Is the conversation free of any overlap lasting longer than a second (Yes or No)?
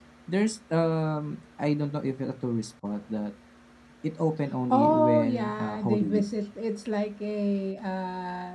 No